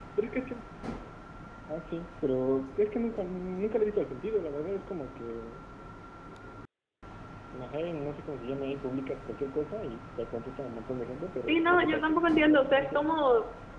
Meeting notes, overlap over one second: present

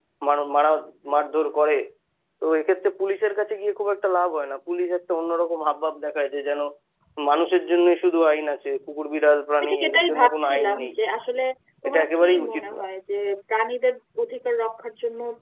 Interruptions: present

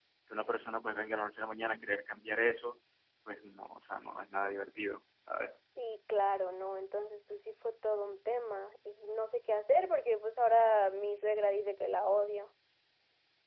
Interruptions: none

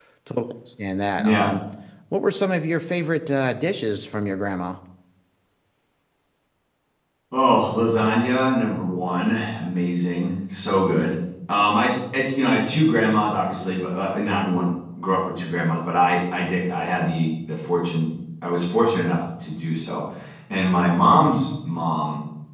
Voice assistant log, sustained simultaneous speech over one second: none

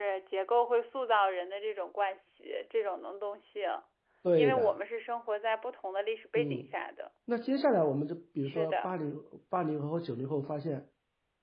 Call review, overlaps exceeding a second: none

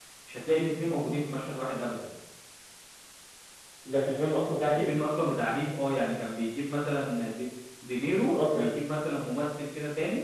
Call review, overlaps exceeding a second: none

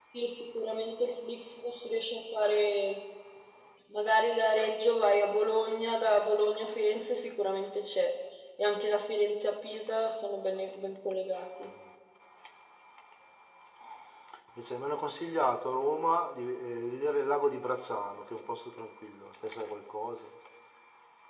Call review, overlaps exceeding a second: none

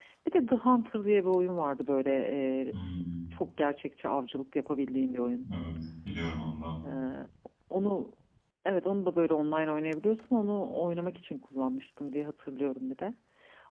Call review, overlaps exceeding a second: none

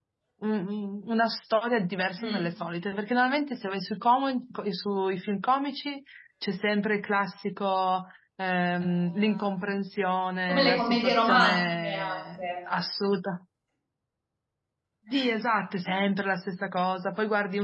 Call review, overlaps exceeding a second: present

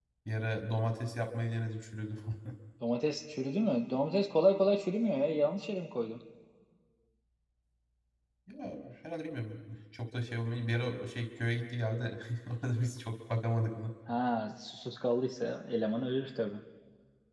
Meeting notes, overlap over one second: none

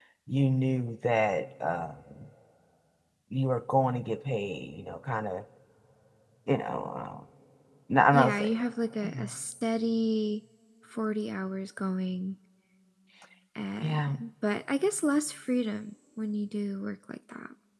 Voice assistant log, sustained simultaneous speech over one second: none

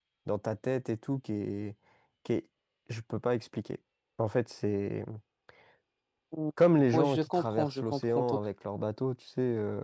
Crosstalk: present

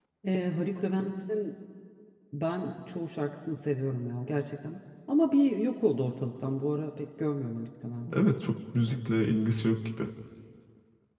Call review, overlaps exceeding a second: none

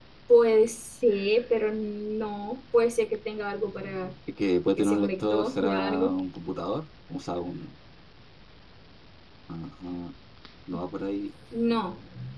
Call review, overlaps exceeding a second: present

